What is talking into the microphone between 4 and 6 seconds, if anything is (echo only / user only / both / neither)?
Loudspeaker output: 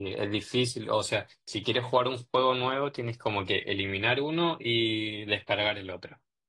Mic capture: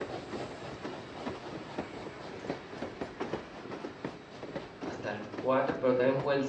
user only